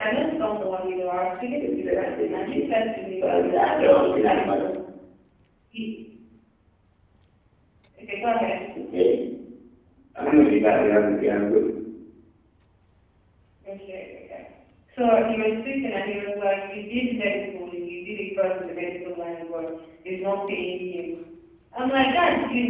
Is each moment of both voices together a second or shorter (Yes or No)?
No